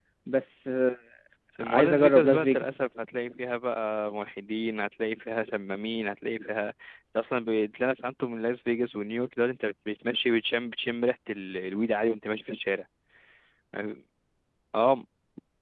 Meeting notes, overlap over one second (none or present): present